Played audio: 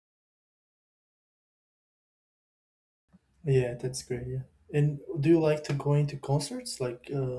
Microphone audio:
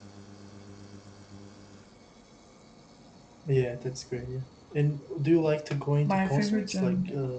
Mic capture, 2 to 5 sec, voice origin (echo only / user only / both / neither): echo only